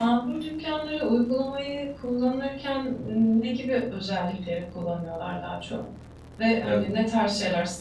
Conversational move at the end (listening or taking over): listening